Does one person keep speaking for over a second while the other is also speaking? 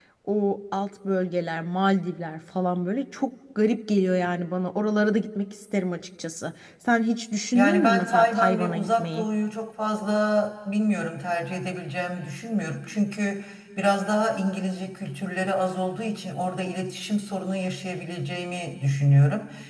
Yes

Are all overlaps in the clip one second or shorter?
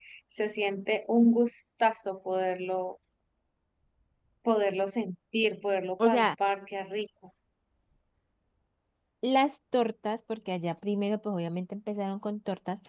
Yes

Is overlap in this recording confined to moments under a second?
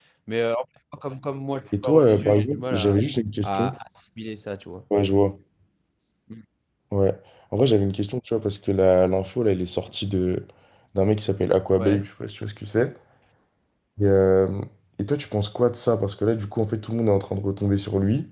No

